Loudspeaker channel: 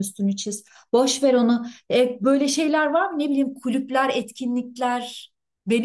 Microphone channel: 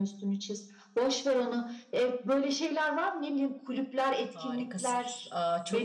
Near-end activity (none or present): present